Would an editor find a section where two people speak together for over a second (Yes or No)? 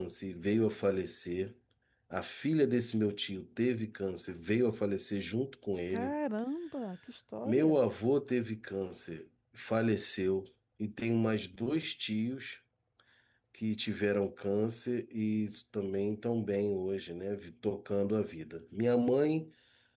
No